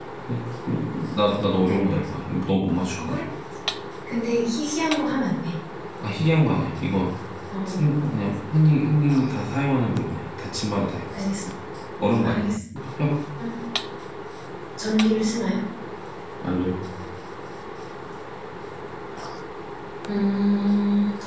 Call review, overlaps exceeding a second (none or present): none